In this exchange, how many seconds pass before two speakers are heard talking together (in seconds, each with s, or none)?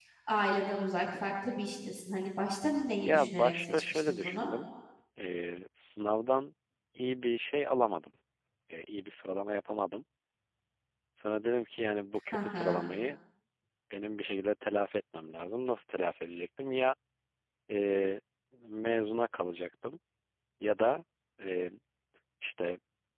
3.0 s